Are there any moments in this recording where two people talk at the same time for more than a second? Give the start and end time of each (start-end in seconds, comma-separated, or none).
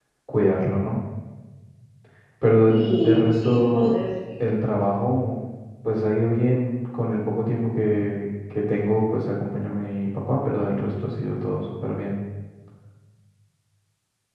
2.7-3.9